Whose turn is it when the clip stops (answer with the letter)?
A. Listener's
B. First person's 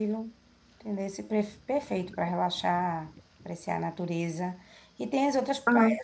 B